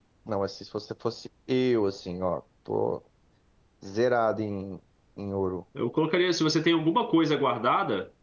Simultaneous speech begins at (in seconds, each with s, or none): none